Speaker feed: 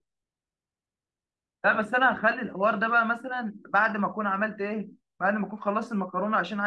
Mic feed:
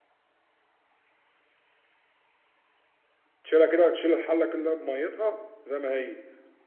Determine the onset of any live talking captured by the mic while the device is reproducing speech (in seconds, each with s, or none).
3.4 s